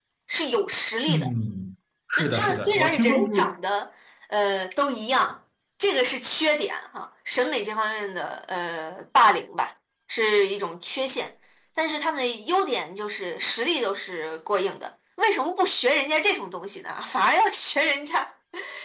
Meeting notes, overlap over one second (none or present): present